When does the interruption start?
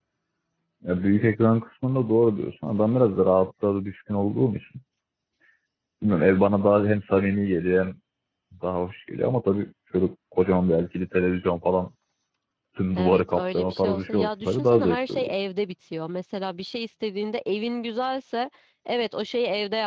13 s

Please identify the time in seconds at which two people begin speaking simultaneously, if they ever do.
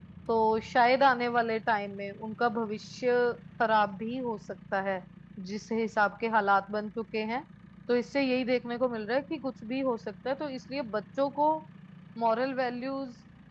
none

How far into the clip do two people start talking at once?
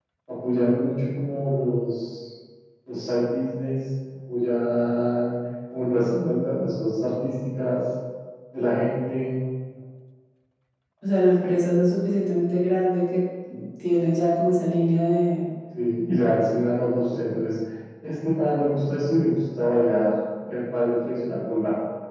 none

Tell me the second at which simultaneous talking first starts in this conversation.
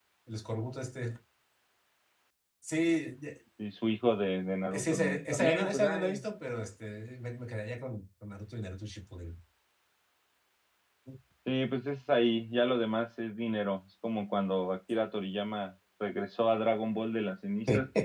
5 s

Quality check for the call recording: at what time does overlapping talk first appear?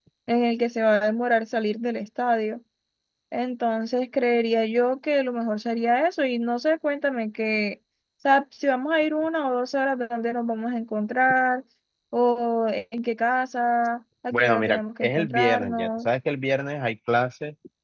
14 s

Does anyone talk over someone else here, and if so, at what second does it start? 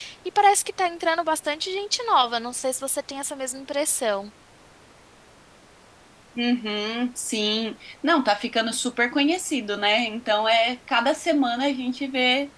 none

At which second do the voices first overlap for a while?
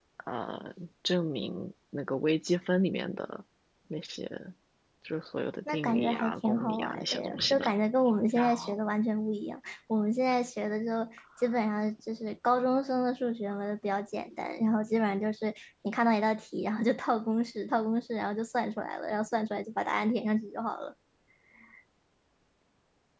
6 s

